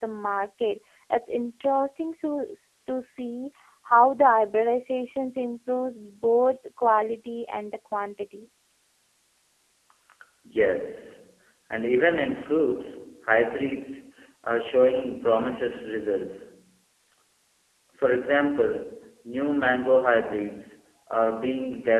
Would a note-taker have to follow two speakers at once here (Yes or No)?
No